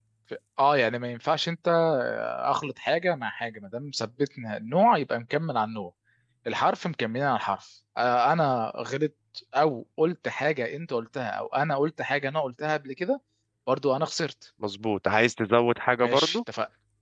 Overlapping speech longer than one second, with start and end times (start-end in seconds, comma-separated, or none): none